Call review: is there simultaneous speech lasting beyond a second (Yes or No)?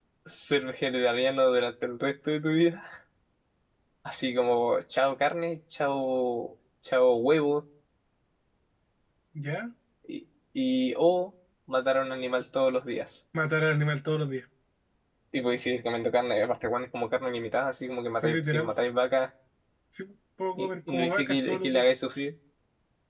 Yes